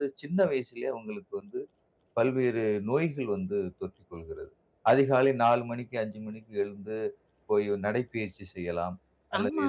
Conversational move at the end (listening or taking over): taking over